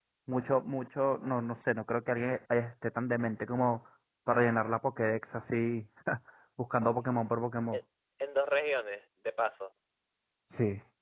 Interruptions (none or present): none